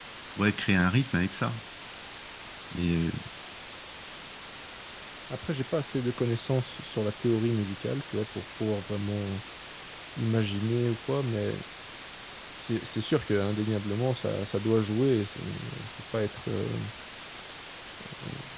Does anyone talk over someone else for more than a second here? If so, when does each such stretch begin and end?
none

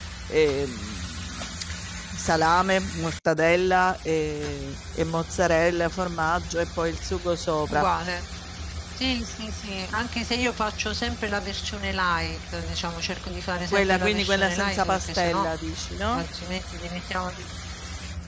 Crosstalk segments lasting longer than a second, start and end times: 13.7-15.5

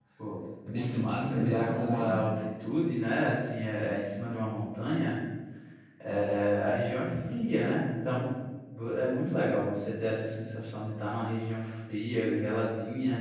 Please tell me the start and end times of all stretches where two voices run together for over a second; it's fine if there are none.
0.7-2.2

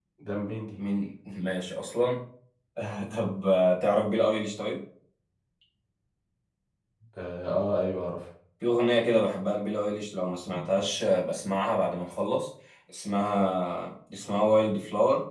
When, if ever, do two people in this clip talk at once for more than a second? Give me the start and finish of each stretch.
none

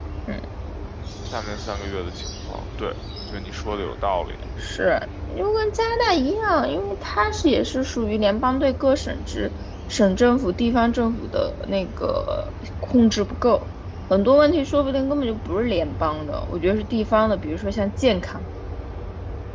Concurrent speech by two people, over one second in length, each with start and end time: none

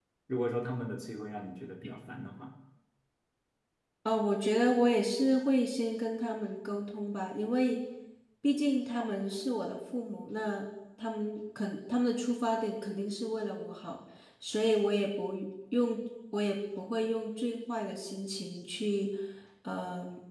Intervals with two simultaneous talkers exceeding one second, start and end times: none

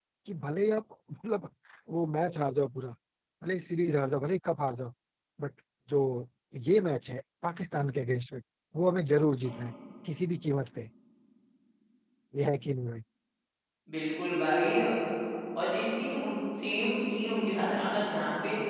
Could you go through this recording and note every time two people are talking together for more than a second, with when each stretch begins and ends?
none

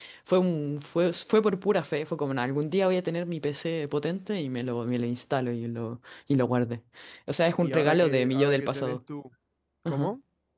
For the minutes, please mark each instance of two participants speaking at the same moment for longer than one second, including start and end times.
7.6-9.0

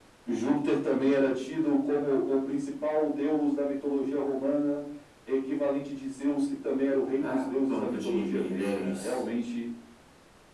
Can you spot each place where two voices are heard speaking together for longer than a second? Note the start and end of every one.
7.2-9.2

